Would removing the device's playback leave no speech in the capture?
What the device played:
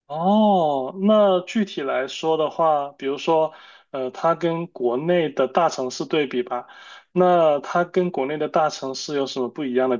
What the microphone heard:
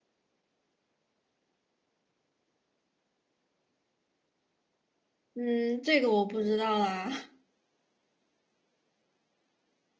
No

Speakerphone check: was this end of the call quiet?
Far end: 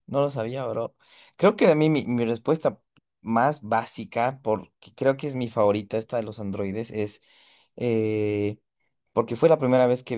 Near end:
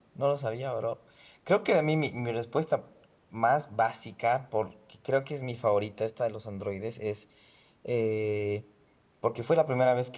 Yes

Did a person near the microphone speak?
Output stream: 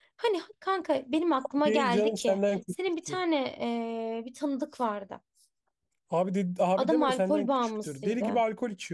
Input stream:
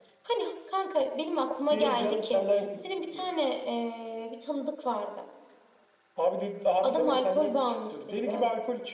No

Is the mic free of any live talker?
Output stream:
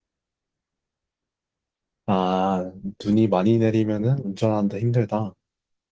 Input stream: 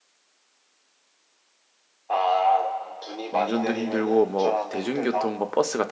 No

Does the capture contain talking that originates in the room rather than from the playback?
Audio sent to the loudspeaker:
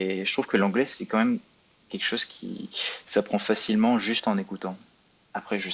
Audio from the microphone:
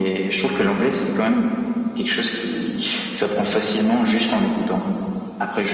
No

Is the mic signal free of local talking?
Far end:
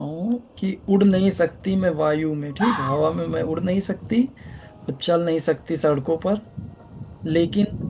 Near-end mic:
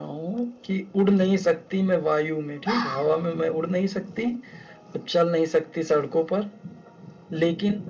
Yes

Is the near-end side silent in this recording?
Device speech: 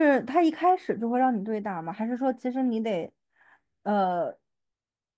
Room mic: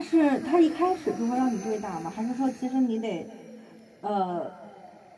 Yes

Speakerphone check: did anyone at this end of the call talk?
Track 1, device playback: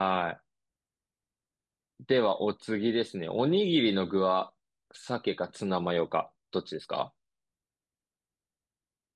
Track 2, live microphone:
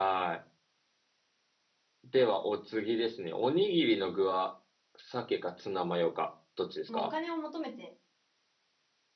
Yes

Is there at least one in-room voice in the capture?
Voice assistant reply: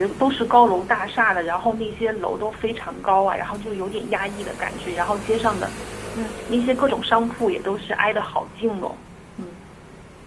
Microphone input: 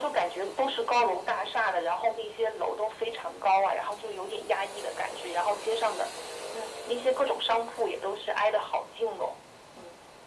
No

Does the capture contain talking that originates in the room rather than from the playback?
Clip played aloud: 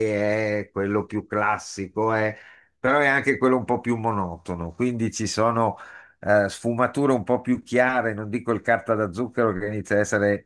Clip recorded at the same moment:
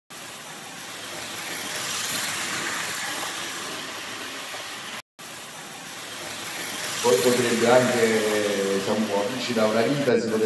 Yes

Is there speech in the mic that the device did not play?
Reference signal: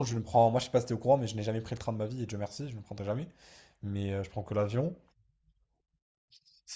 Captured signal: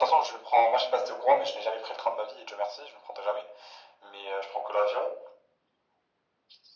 No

